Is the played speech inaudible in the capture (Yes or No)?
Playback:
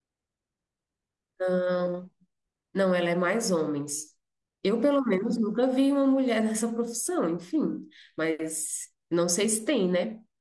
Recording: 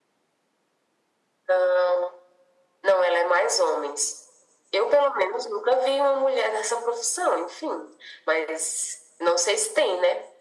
No